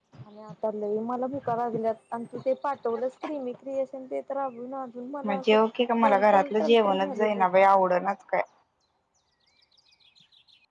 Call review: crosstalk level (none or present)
present